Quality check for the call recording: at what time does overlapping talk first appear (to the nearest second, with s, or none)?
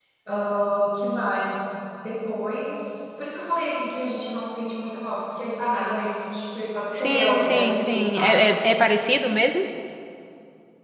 7 s